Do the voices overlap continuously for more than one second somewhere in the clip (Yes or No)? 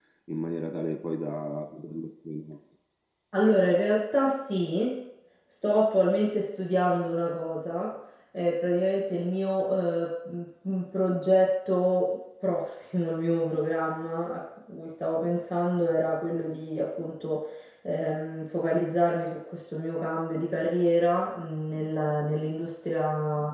No